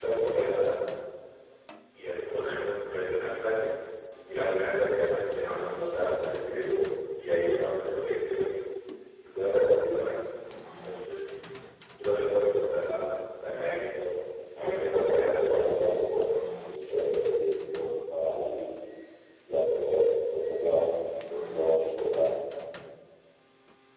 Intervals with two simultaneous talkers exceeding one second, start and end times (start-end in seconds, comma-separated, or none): 14.6-15.9